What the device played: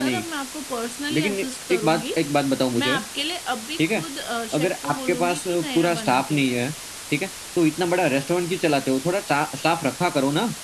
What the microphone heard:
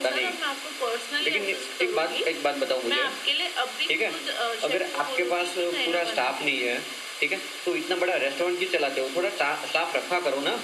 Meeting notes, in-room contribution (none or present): none